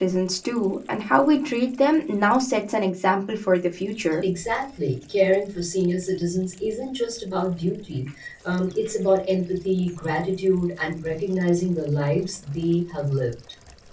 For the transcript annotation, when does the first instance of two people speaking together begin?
none

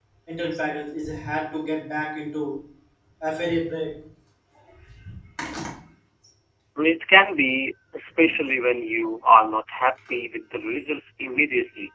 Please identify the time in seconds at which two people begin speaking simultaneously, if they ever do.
none

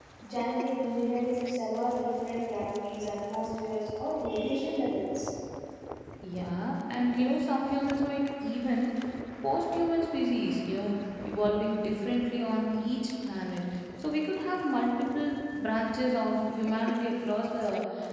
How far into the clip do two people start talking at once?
none

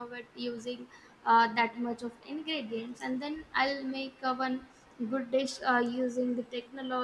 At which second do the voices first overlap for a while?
none

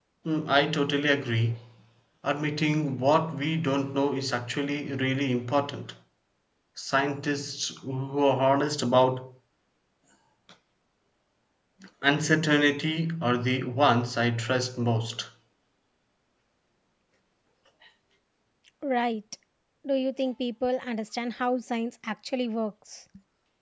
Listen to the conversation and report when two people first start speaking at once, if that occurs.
none

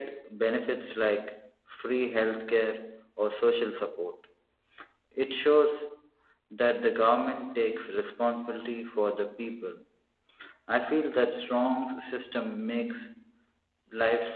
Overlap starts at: none

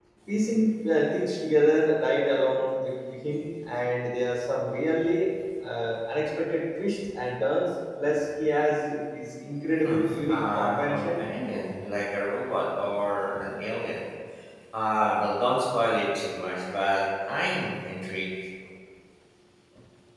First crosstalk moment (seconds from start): 10 s

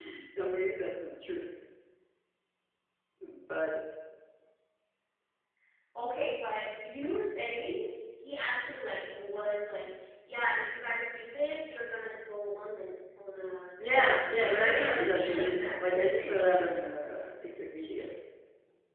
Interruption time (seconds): 14 s

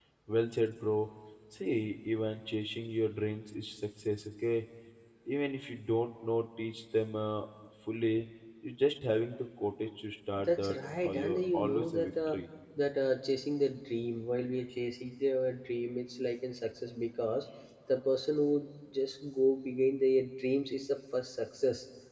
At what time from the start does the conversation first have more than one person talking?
10 s

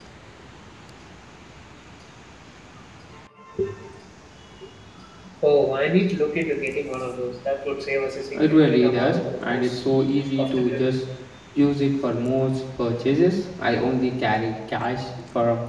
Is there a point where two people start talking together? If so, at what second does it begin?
8 s

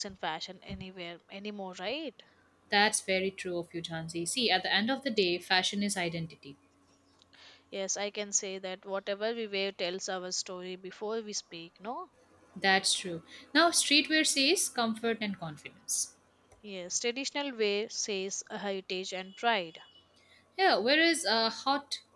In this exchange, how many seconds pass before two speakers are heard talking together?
none

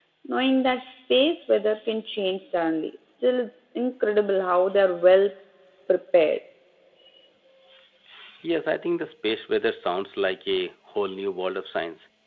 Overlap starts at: none

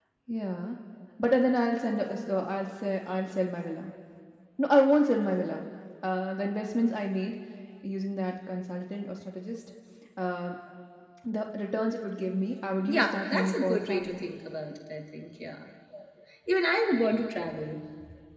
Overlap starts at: 13 s

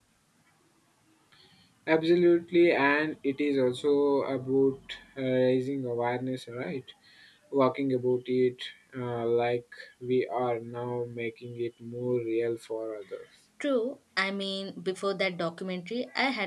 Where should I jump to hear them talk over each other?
none

